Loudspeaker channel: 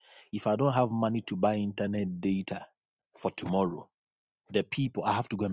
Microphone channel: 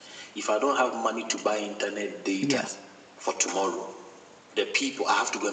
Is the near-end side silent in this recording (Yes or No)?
No